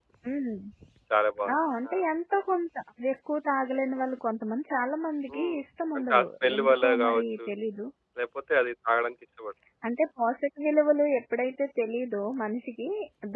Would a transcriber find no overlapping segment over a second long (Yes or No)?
No